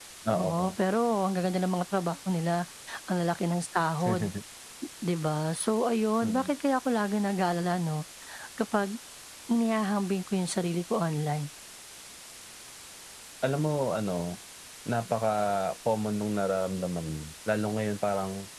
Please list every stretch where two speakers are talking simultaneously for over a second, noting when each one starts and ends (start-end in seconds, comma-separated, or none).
none